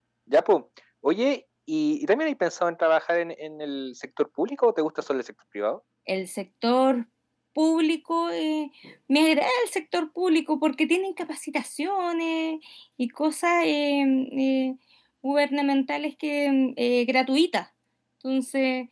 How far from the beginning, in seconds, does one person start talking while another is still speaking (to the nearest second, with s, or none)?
none